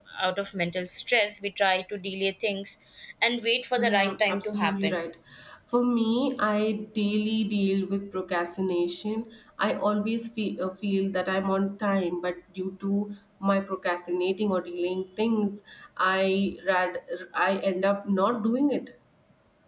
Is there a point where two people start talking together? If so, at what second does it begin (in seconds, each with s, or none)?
3.8 s